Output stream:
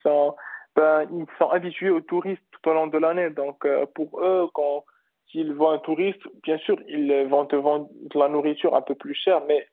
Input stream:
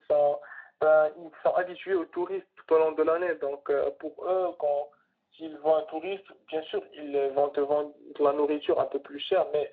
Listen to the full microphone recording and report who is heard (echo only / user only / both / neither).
echo only